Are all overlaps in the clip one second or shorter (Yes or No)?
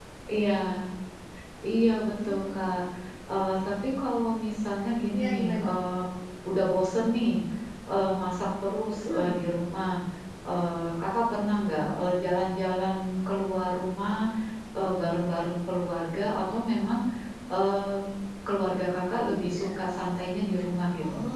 Yes